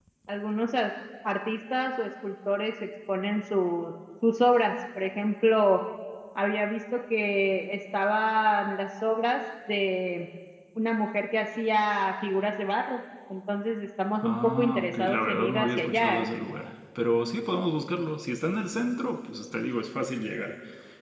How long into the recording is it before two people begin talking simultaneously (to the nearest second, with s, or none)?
14 s